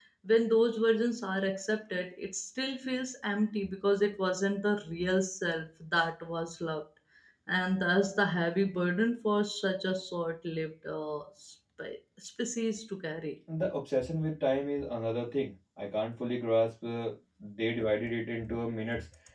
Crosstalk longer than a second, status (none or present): none